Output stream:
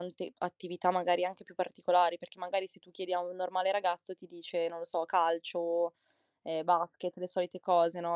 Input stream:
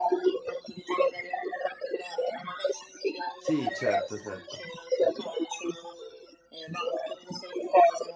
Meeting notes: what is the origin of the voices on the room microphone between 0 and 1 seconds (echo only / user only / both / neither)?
echo only